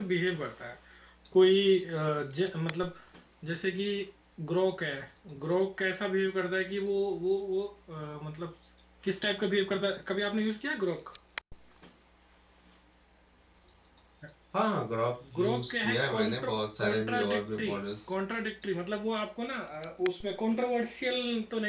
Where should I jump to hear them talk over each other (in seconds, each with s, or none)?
15.3 s